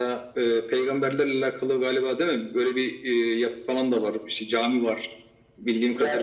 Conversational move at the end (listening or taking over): taking over